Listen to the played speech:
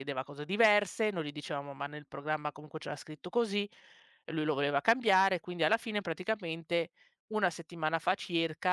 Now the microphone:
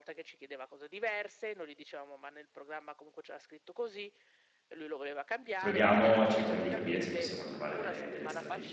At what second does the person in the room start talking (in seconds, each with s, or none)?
5.6 s